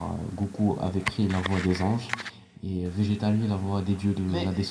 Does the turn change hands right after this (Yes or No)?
No